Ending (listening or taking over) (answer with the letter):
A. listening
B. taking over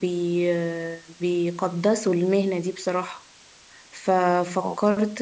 A